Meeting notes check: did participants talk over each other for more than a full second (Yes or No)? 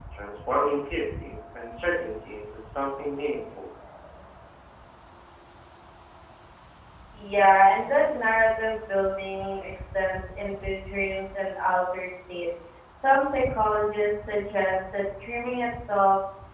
No